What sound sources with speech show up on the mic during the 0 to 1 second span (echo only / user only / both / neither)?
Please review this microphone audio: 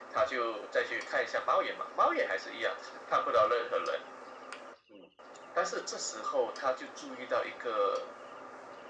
echo only